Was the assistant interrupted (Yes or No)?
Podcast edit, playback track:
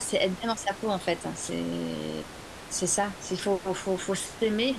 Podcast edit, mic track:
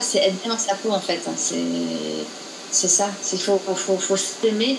No